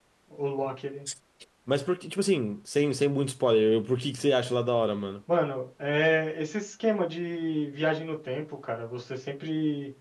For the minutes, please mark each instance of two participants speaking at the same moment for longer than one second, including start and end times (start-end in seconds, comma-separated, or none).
none